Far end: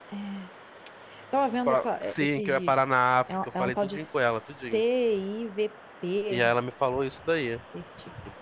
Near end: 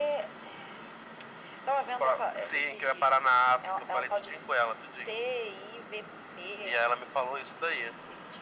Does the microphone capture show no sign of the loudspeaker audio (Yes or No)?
No